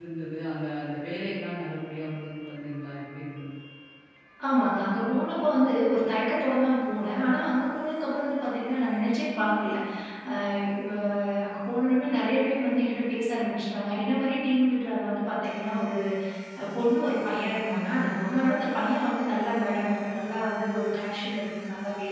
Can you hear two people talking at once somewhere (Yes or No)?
No